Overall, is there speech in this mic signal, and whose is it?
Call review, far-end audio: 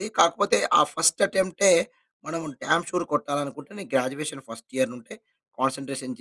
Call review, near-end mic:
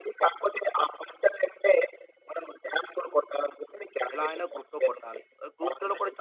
both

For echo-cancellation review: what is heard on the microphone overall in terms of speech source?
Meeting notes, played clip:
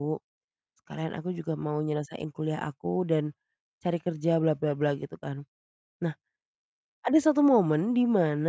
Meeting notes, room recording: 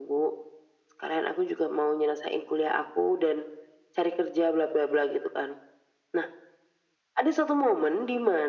echo only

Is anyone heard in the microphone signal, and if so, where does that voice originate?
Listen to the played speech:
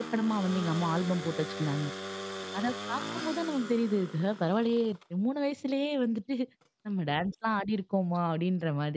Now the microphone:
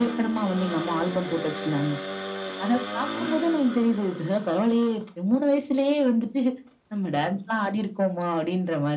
echo only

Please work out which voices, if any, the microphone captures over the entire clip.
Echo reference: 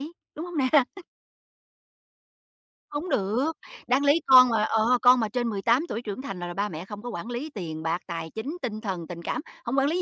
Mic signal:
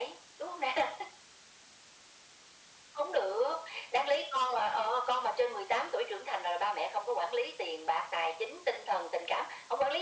echo only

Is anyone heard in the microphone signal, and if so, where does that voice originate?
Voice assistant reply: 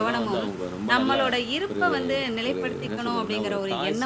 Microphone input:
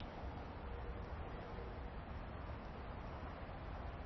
neither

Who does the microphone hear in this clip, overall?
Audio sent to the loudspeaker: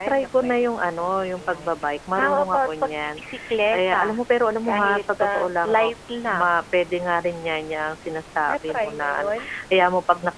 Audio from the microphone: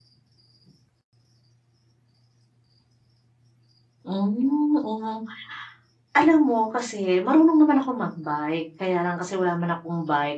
user only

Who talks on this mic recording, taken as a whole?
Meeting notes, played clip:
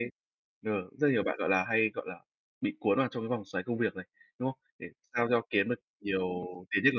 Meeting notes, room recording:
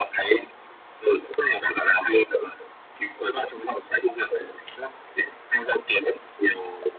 echo only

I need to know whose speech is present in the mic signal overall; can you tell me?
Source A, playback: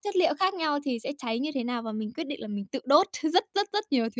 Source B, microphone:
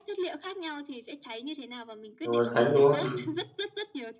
both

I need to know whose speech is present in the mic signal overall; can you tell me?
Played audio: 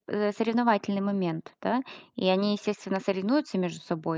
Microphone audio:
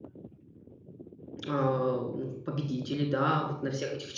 user only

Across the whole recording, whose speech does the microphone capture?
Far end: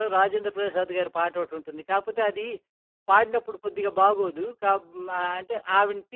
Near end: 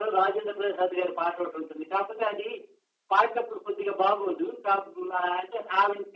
echo only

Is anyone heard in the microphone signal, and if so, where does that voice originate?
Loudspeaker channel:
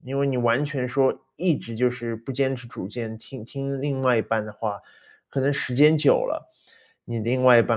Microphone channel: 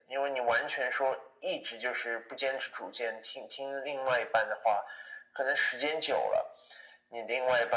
echo only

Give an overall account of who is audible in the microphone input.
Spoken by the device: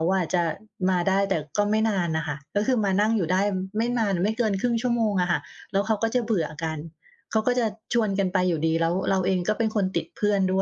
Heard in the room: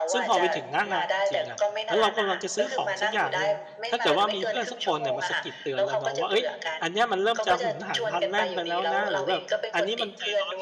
both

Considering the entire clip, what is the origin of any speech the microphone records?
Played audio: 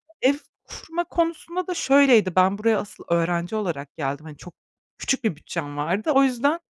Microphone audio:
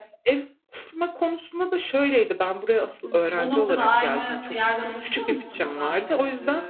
both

